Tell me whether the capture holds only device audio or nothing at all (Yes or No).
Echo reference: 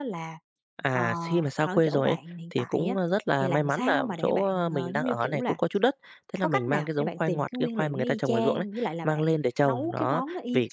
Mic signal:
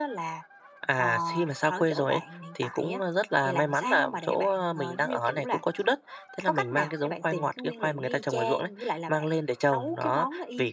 Yes